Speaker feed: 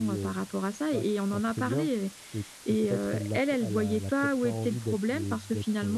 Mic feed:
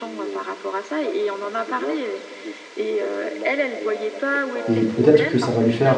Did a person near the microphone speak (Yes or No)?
Yes